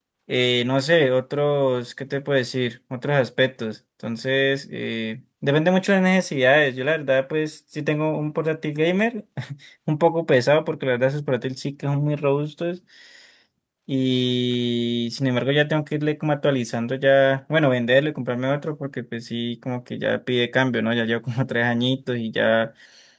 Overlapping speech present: No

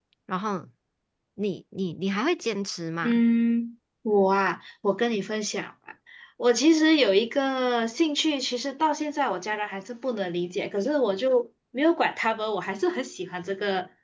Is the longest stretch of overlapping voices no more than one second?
Yes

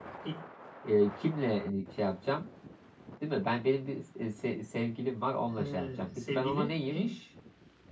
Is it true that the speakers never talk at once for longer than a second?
No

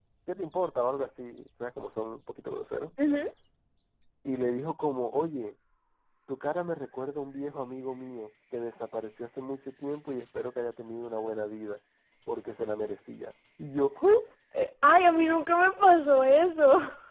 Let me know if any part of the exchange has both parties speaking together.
No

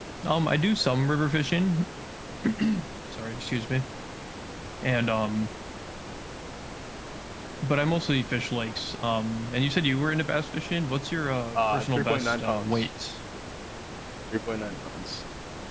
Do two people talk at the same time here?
Yes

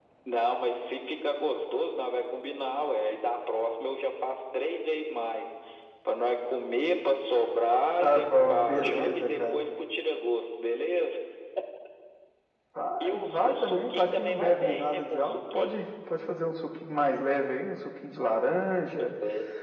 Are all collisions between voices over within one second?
No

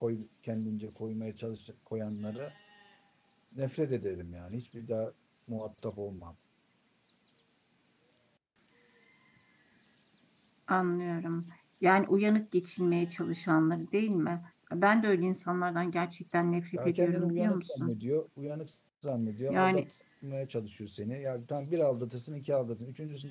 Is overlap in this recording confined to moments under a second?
No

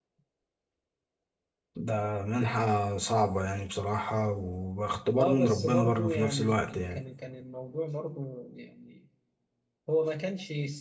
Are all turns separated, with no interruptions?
No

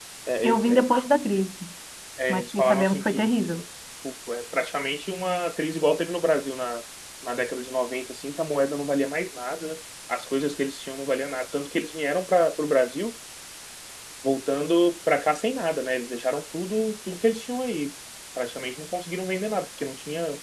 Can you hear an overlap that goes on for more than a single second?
Yes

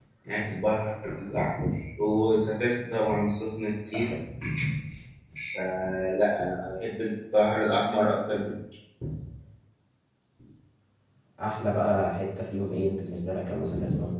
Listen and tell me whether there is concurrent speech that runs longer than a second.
No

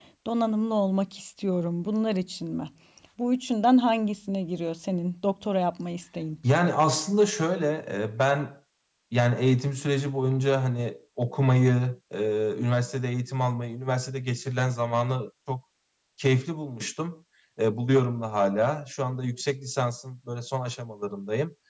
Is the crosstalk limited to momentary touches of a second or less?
Yes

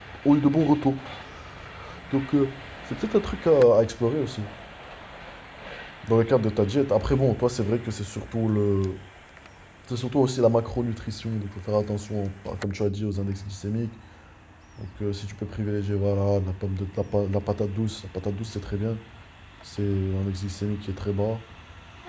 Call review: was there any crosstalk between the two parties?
No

